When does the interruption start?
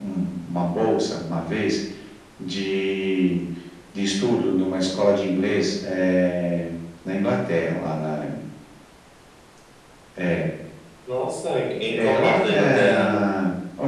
11.9 s

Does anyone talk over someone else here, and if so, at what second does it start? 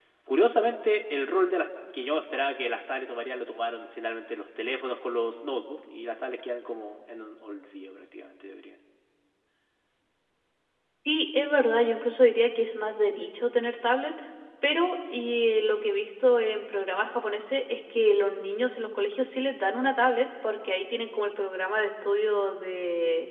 none

